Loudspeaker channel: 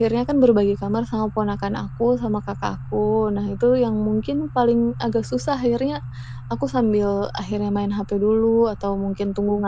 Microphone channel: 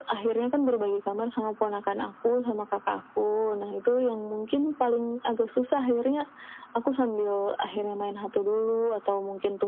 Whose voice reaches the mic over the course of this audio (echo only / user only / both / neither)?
echo only